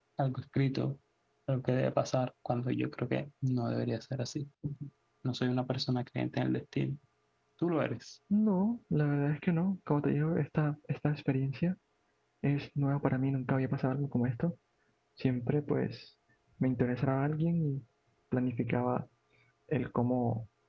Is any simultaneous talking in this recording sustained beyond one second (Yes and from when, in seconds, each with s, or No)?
No